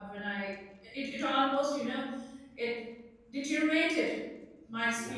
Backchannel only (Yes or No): No